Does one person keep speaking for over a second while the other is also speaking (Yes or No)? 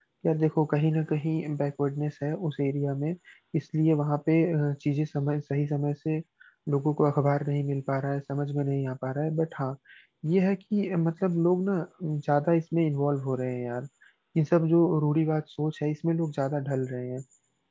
No